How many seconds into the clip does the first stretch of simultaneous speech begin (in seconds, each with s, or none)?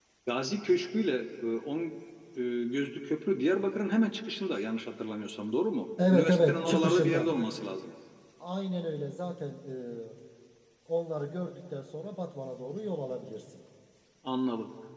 6.0 s